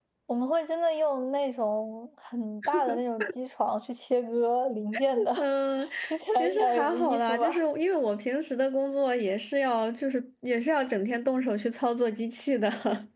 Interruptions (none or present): present